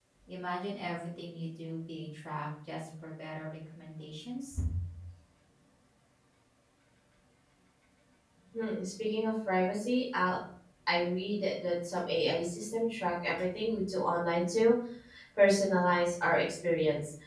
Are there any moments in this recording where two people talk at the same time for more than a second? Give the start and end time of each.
none

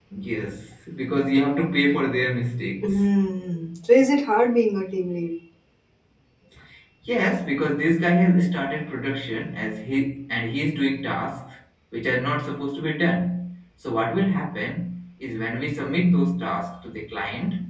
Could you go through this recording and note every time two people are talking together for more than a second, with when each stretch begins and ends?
none

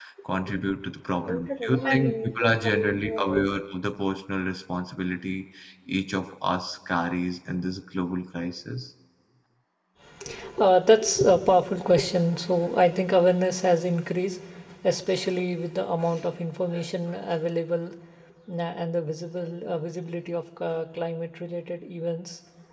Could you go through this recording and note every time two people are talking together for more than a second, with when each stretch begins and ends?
1.4-3.4

